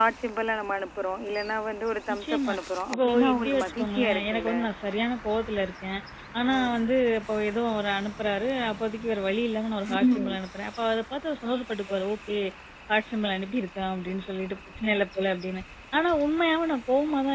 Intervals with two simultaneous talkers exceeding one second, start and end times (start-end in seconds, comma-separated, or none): 2.9-4.5